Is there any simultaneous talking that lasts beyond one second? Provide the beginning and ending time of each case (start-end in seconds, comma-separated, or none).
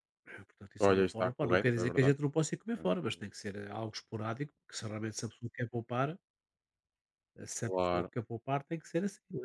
0.9-2.1